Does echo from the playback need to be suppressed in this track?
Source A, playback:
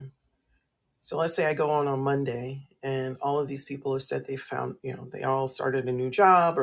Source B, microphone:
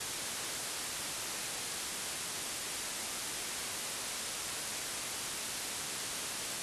No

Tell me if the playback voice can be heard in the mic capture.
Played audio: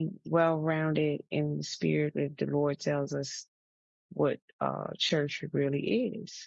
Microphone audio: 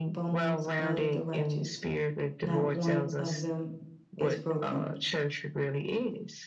Yes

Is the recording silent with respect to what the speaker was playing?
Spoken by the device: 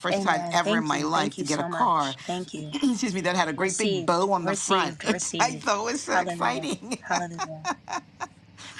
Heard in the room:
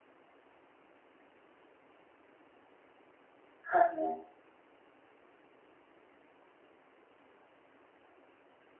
Yes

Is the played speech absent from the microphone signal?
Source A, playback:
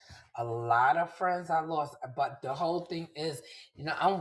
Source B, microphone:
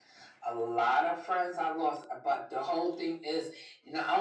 No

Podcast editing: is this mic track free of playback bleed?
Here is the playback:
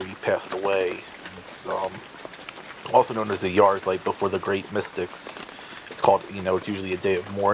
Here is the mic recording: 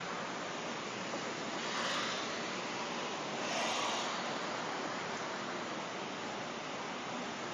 Yes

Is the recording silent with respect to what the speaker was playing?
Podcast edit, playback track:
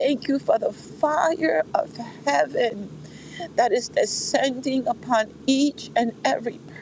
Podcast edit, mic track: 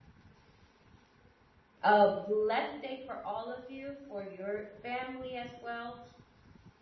Yes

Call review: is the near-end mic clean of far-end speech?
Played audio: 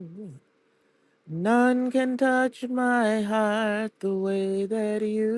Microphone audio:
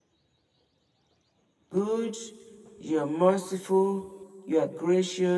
Yes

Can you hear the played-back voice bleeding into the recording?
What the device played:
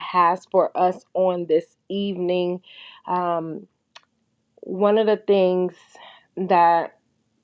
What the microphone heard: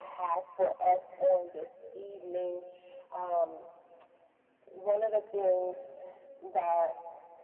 Yes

